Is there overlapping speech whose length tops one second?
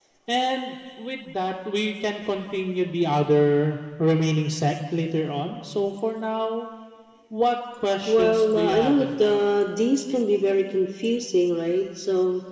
Yes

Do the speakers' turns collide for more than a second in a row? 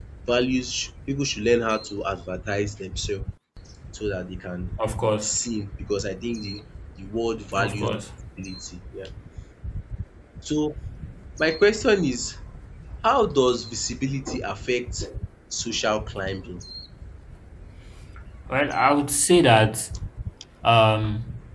No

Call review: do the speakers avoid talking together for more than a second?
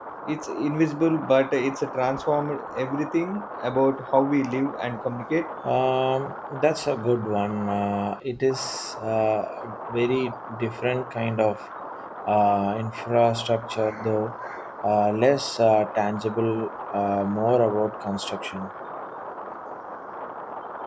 Yes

